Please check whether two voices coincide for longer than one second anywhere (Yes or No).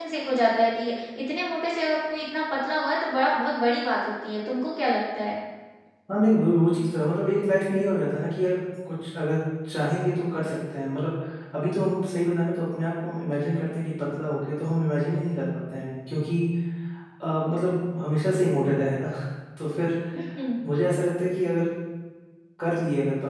No